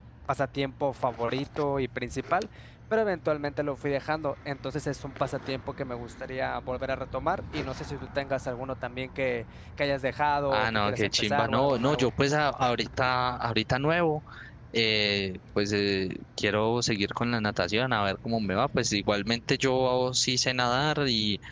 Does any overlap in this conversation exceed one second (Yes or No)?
Yes